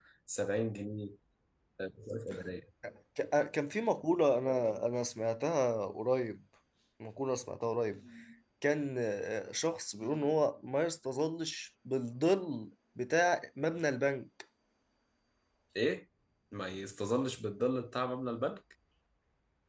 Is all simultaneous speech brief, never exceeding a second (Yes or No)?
Yes